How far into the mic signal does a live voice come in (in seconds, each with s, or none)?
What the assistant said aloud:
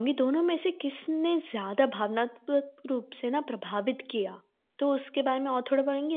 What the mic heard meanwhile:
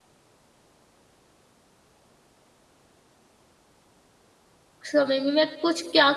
4.9 s